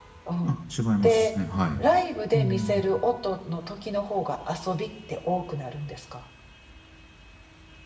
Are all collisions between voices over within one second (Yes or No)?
Yes